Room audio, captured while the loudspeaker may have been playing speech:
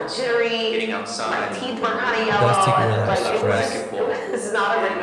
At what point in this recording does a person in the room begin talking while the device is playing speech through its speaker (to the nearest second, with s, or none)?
2 s